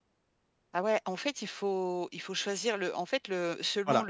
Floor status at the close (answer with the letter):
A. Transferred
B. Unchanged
B